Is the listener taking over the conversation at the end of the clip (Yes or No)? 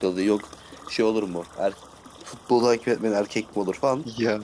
No